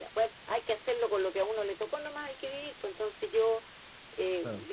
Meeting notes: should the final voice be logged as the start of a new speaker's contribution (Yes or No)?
No